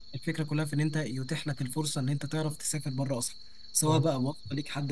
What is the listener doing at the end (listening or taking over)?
listening